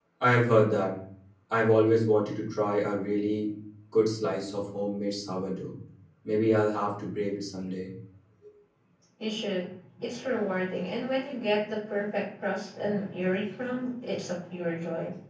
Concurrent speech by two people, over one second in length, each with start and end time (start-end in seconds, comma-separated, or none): none